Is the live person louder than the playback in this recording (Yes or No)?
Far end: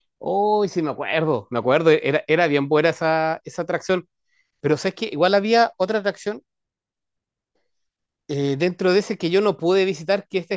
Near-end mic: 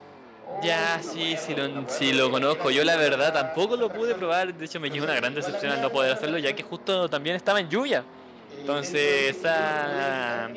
Yes